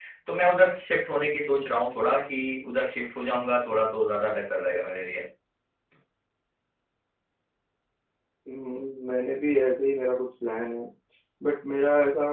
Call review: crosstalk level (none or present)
none